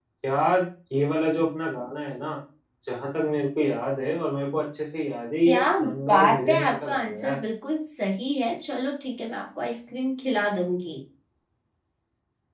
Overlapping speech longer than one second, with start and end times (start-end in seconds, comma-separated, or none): 6.1-7.4